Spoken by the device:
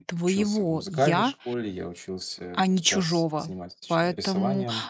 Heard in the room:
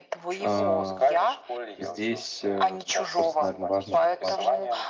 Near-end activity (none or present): present